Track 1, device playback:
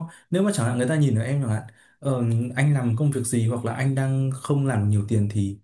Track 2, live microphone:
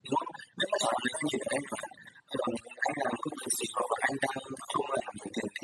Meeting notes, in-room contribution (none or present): none